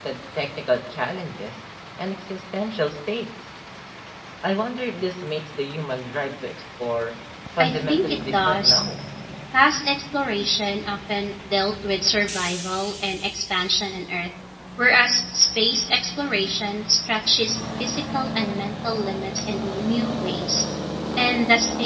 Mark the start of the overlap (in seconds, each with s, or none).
7.6 s